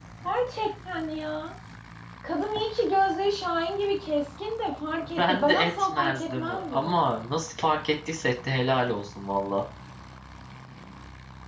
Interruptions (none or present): present